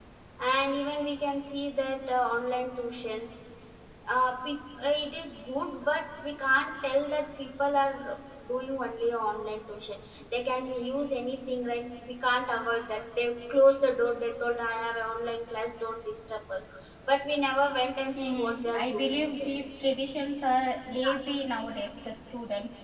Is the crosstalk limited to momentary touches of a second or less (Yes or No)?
No